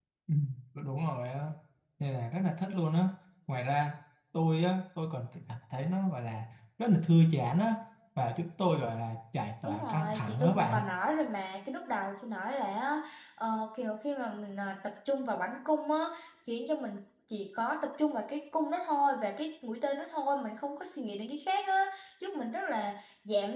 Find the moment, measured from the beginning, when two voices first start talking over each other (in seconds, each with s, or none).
9.6 s